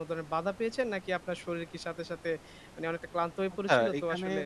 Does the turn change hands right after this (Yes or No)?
Yes